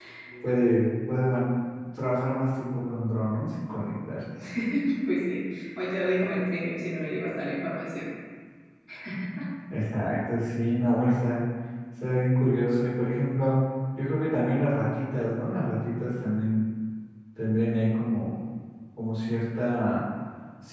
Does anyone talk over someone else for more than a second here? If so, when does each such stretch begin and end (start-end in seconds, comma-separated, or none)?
none